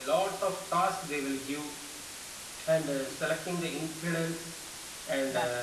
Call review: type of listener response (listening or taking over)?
listening